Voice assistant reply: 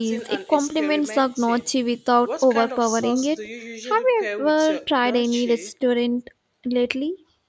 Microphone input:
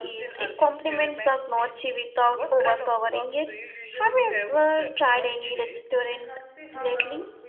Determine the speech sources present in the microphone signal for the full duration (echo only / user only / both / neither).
both